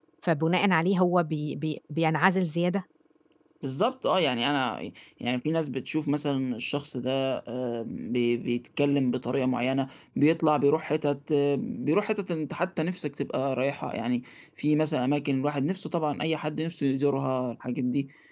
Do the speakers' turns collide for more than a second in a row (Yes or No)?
No